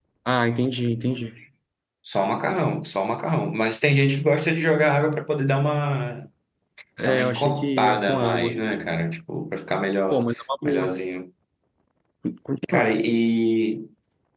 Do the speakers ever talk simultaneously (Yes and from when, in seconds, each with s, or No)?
Yes, from 7.1 s